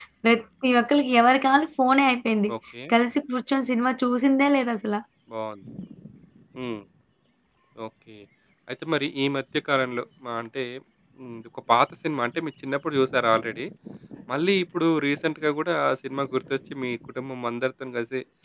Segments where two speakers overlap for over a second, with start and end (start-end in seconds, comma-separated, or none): none